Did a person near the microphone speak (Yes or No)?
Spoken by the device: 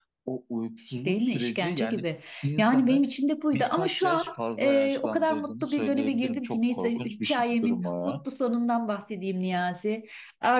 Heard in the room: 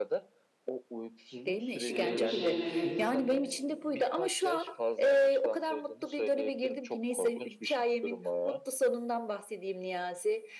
Yes